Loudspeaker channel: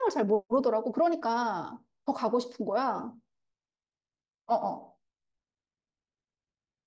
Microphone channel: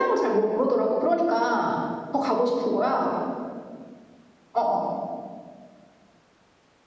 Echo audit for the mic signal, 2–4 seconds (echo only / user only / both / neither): echo only